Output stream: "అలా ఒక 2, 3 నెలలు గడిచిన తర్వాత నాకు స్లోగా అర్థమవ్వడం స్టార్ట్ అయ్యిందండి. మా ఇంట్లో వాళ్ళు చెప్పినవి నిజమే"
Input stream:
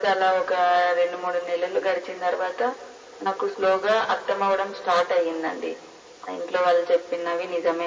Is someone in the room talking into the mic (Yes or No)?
No